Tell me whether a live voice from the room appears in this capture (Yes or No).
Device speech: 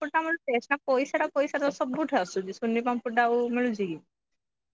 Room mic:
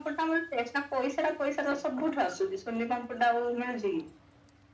No